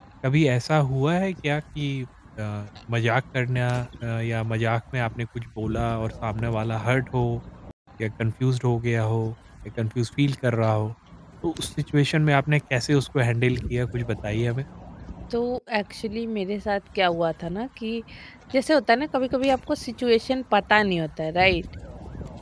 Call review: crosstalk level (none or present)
none